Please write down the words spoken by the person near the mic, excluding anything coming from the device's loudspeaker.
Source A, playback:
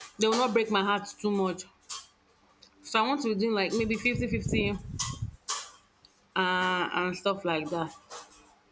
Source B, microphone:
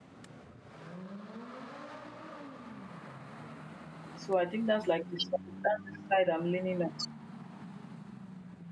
so I think that's like the, that's the side I'm leaning on.

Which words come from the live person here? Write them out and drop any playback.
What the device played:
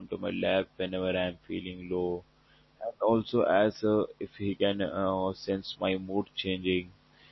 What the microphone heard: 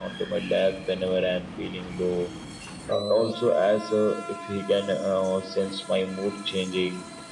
Uh,

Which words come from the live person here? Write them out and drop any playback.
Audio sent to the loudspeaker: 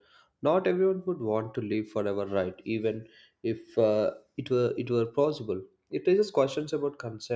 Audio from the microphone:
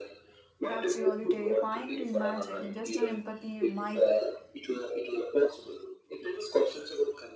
That's really terrifying to imagine. Just an empathy might

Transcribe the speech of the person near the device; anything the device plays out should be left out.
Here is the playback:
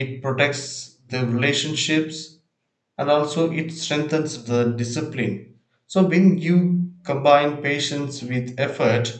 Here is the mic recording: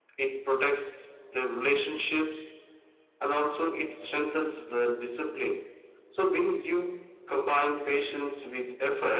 none

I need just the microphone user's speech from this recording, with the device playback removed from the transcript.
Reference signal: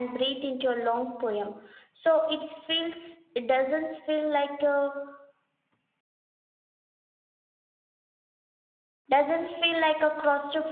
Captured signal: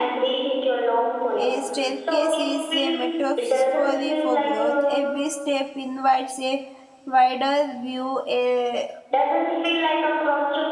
A staircase is a metaphor for growth. Every step invites a wider view, a,

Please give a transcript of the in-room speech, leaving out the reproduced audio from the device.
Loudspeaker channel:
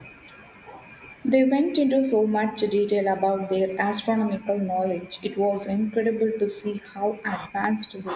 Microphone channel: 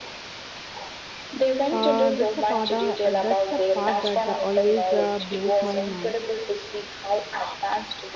Uh, that's a part. Uh, uh, that's a part that uh, always uh, blows my mind.

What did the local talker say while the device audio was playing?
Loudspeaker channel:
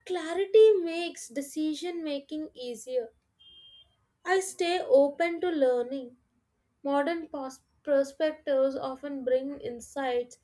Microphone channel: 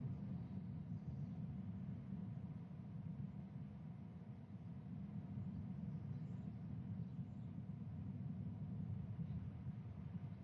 none

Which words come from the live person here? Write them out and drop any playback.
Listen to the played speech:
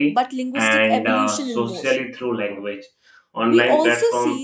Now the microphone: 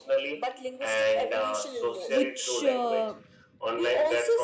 which uh,

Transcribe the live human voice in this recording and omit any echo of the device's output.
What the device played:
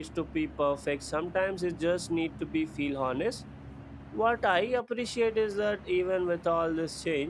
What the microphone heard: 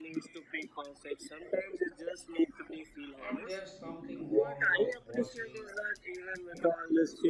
And there's something warm about watching

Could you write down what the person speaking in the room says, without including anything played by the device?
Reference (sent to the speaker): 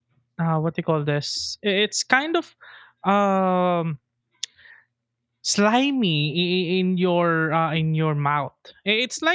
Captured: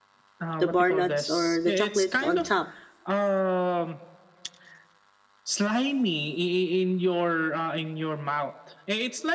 the bar nuts or the chocolate on top

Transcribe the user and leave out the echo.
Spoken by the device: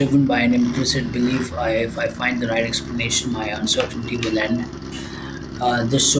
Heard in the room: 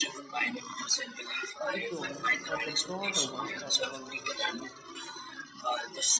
bigger ones or the broader ones that we always wish to

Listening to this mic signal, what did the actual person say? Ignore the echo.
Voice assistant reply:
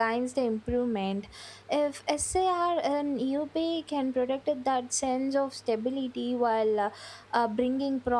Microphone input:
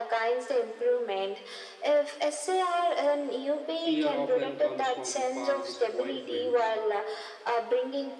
fear often comes from past disappointments.

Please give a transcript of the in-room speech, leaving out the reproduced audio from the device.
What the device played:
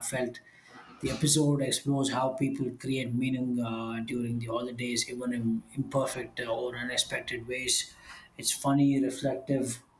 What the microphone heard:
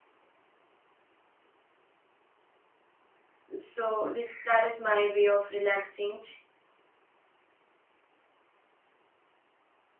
so this that is my way of relaxing

